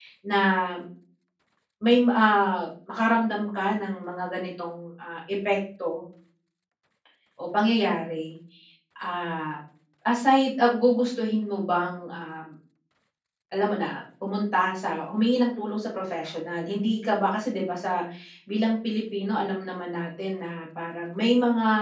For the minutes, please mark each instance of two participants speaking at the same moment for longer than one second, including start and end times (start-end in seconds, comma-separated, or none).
none